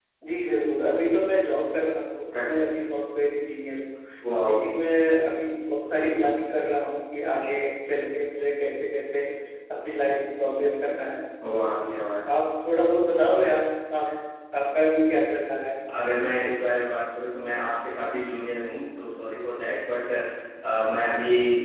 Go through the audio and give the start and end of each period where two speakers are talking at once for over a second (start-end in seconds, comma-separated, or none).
none